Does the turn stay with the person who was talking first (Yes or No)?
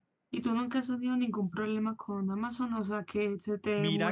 No